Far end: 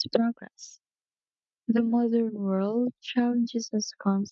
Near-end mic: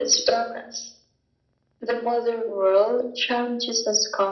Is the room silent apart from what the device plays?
Yes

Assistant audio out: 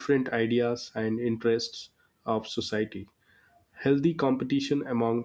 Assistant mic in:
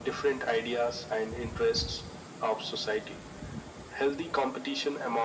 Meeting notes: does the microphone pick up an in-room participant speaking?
No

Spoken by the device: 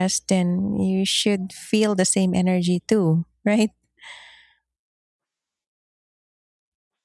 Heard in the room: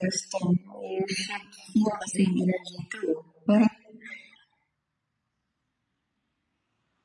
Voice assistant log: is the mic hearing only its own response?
Yes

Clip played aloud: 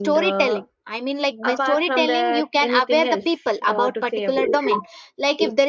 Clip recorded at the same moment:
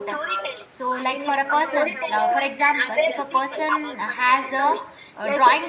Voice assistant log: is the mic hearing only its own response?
No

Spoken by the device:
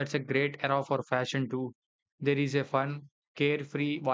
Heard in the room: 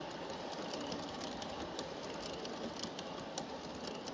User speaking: No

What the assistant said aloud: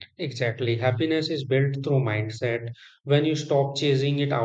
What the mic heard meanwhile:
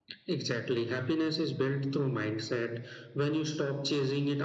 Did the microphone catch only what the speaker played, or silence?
Yes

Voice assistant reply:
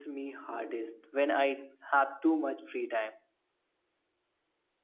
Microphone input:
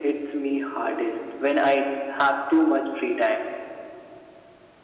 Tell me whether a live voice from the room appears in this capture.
No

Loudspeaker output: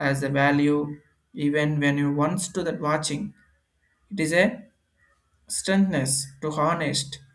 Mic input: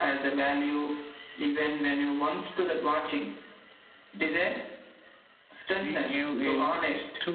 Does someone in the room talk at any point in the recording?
Yes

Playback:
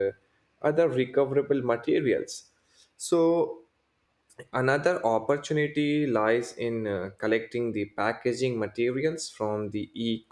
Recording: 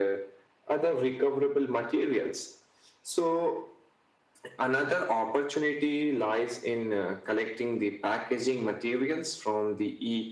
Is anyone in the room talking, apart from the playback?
No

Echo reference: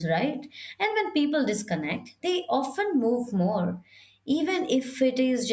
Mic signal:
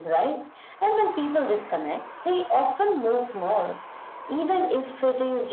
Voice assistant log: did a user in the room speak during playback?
No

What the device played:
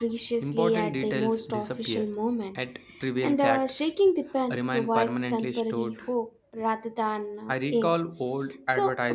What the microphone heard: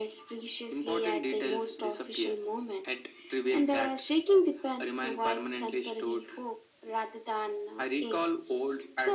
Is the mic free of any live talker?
Yes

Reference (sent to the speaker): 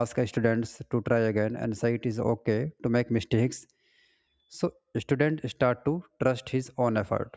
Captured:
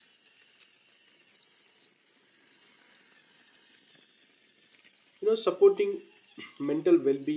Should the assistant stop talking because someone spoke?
Yes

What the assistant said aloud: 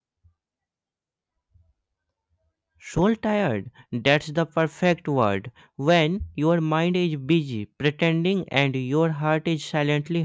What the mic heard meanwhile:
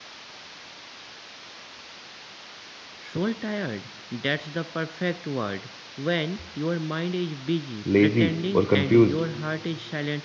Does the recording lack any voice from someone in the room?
No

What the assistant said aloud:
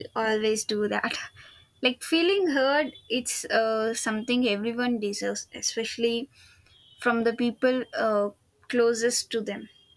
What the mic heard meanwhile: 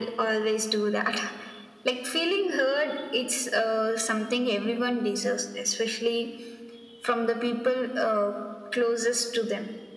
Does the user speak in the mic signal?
No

